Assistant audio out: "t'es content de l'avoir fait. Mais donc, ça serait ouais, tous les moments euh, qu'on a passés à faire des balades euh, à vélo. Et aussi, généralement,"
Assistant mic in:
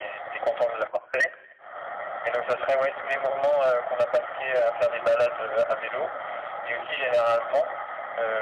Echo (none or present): present